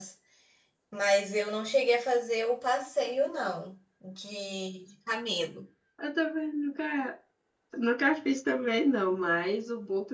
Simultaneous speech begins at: none

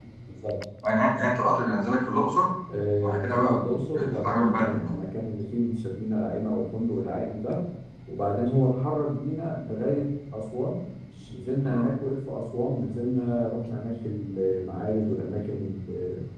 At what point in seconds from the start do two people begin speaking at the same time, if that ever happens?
3.0 s

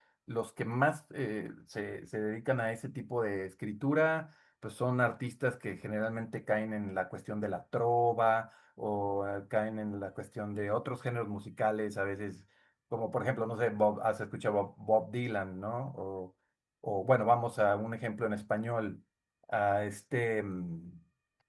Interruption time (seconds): none

